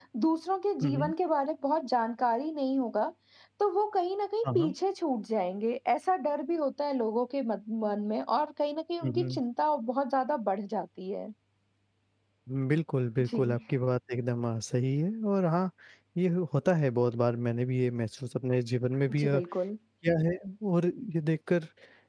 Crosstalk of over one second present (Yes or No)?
No